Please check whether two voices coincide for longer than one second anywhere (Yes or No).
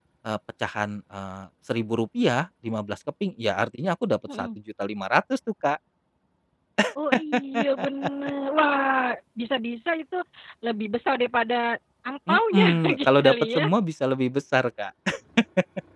Yes